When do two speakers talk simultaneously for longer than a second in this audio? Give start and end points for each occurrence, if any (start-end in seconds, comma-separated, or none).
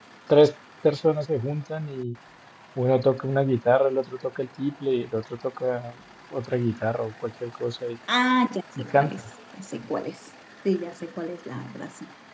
none